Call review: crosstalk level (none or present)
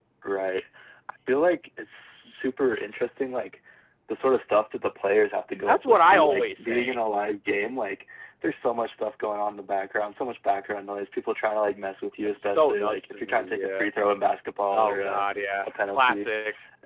present